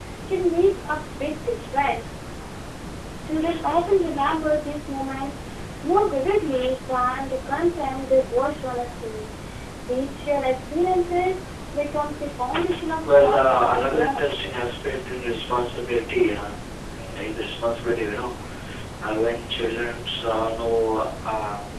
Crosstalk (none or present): present